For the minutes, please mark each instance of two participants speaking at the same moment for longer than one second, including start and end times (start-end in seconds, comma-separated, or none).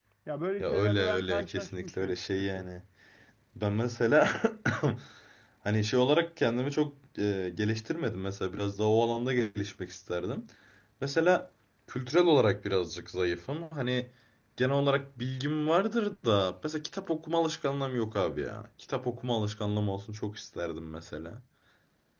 0.6-2.7